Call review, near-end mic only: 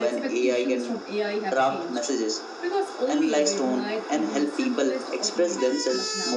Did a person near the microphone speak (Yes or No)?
Yes